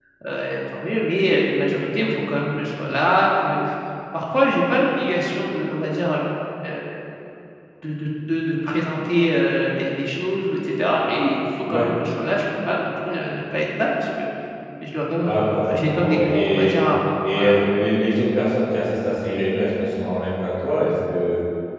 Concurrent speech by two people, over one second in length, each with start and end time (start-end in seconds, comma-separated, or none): 15.2-16.8